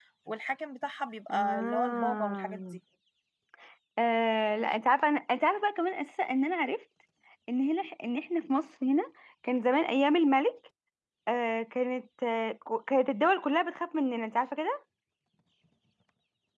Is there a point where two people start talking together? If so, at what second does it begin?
1 s

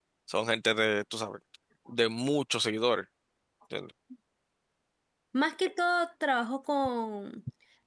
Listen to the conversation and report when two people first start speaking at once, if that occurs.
none

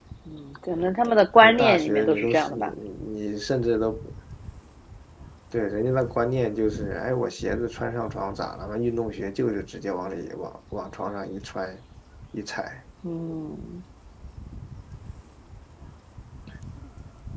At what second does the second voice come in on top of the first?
1 s

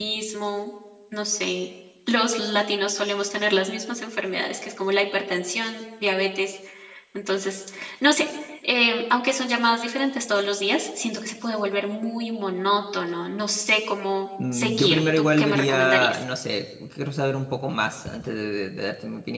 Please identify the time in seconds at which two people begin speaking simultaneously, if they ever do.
14 s

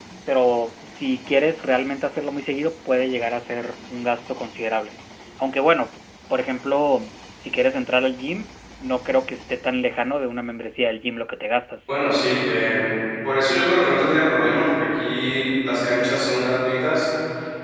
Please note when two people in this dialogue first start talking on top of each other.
none

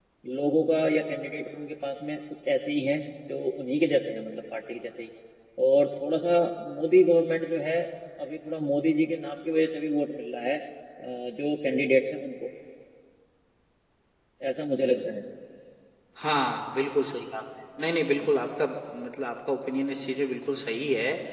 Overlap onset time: none

